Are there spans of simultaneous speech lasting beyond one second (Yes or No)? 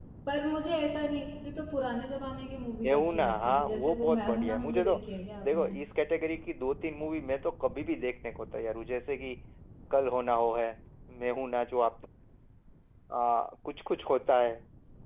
Yes